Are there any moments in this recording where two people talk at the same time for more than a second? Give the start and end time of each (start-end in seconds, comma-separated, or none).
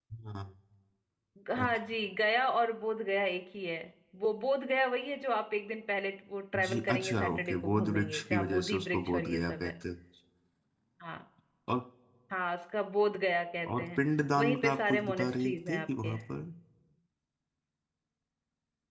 6.5-9.7, 14.4-16.1